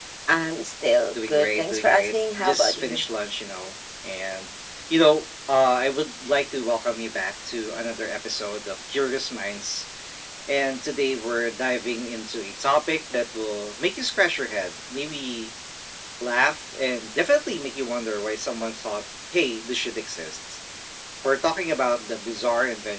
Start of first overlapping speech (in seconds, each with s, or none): 1.1 s